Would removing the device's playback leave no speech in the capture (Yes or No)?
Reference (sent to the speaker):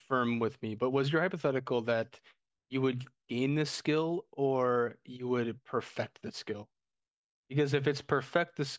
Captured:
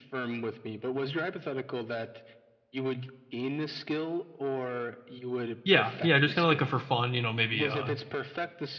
No